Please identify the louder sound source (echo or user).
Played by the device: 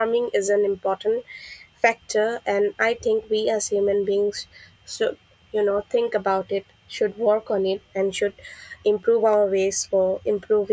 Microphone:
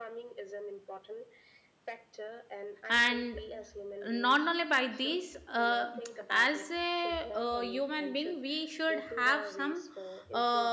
user